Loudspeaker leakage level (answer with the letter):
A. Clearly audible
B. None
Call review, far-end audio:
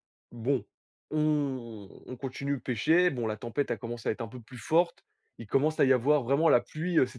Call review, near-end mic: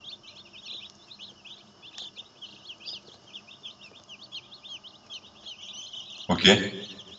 B